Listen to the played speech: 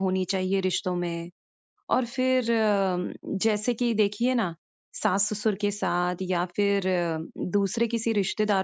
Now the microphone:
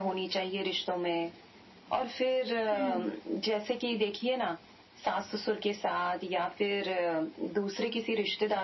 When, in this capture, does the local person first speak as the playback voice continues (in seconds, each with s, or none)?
2.7 s